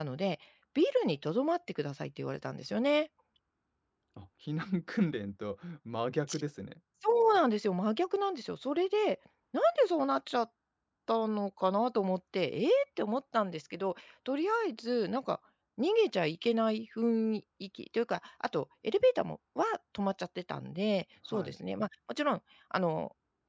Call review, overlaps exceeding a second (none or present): none